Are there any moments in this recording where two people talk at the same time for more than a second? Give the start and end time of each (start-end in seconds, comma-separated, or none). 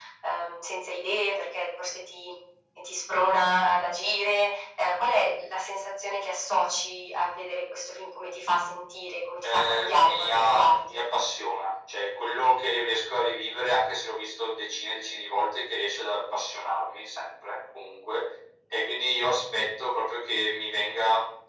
9.4-11.0